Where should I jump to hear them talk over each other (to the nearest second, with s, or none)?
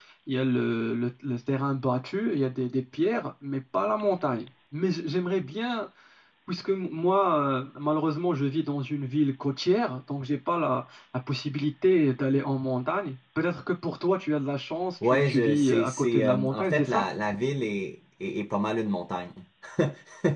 15 s